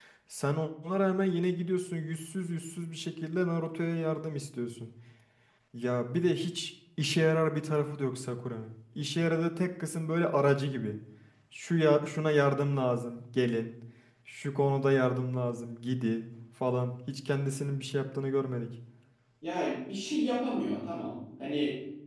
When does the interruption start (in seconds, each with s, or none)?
none